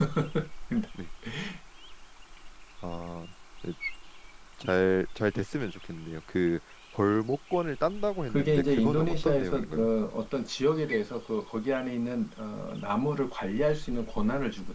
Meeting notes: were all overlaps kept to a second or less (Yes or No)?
No